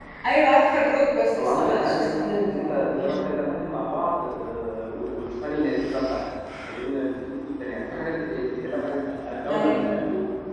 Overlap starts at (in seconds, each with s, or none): 1.4 s